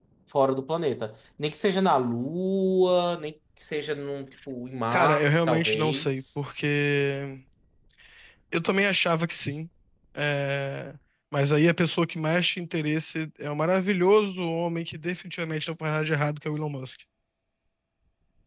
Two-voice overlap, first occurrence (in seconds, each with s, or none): 4.9 s